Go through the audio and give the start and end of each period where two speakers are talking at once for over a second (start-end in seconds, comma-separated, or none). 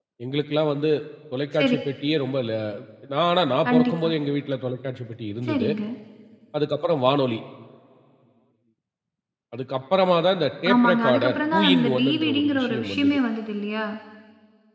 10.7-13.2